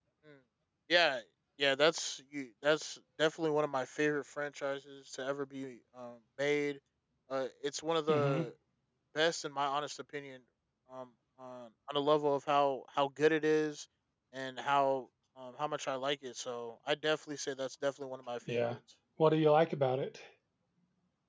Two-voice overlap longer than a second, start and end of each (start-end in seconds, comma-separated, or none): none